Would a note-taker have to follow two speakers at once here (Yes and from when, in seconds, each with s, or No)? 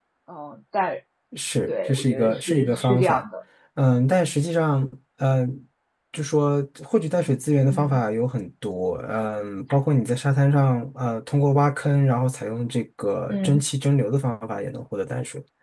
Yes, from 1.7 s